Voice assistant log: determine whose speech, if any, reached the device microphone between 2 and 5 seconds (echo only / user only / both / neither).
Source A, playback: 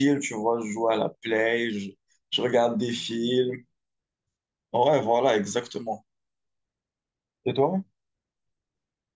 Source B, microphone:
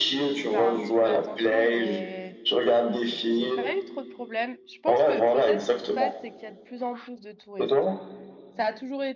both